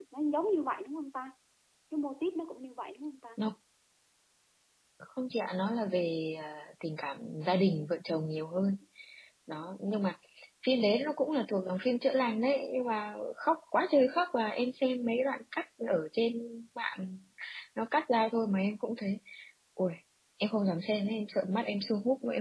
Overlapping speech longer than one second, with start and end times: none

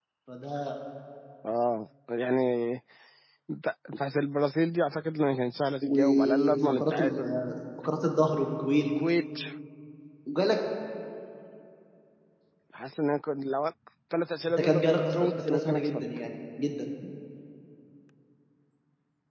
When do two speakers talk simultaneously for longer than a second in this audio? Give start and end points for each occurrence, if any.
5.8-7.3, 14.5-16.0

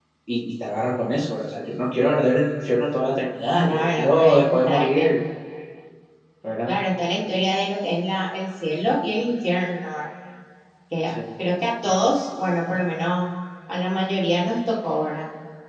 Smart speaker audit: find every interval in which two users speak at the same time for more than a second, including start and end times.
3.6-5.1

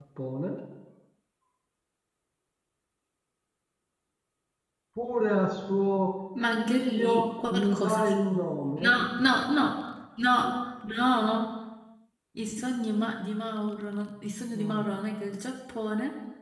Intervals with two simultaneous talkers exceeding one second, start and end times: 6.5-8.2

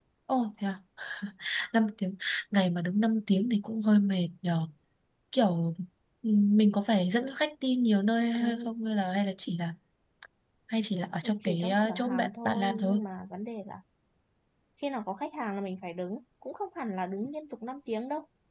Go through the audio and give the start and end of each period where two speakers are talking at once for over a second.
11.4-13.0

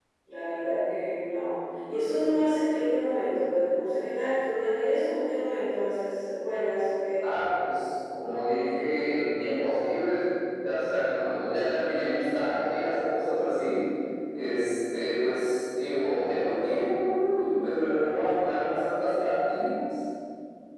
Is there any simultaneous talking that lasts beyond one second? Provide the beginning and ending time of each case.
none

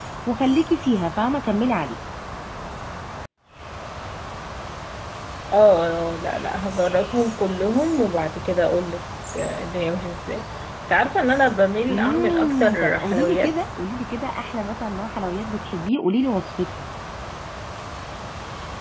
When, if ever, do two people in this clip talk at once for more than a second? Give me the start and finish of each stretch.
11.9-13.5

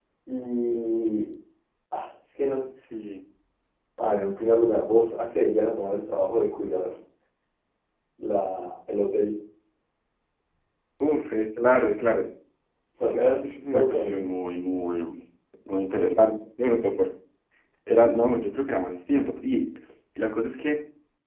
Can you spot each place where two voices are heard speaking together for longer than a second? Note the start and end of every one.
13.0-14.3

